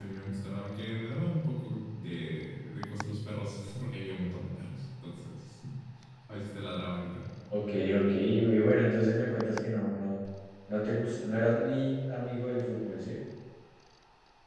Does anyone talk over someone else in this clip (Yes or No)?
No